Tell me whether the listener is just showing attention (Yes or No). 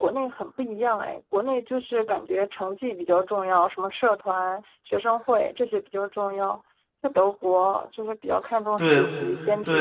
No